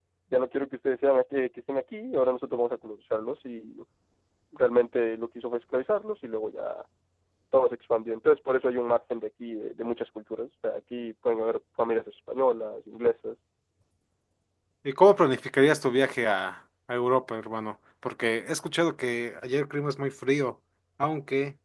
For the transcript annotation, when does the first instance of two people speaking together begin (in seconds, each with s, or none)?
none